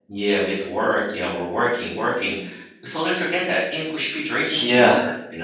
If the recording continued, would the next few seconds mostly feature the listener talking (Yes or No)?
Yes